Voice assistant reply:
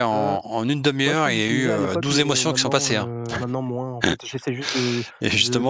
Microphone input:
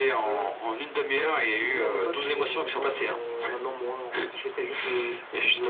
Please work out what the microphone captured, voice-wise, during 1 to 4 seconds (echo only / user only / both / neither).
echo only